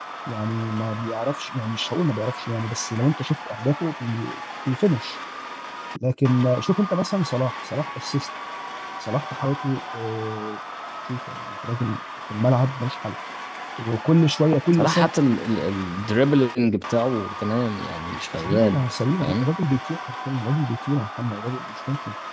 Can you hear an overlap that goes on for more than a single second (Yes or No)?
No